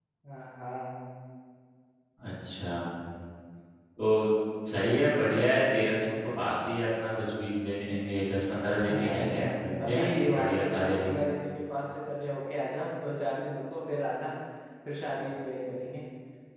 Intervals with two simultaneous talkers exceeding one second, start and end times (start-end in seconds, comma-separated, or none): 9.9-11.2